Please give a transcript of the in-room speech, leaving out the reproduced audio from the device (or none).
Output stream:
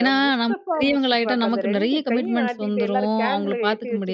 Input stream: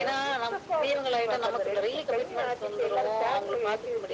none